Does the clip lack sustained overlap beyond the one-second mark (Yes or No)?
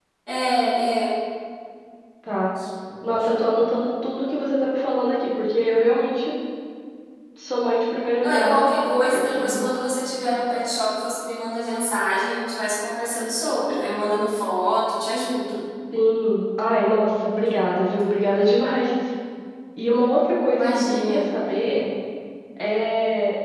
No